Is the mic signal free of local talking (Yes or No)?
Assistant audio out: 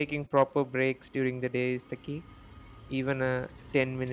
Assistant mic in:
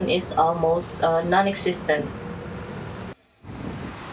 No